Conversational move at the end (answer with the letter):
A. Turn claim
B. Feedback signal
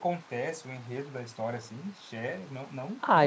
A